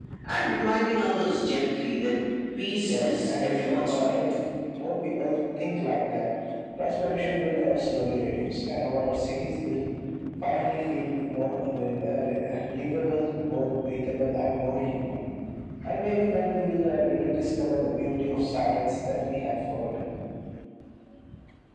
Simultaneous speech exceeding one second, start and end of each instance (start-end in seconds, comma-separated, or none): 2.8-4.2